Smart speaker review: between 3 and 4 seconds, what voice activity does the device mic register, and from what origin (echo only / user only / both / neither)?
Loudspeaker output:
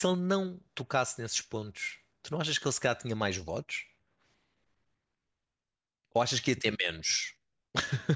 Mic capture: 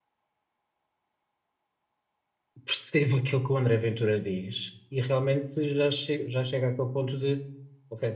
user only